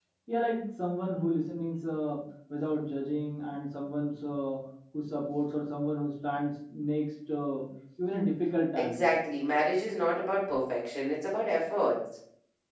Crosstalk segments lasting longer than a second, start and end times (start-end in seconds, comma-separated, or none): none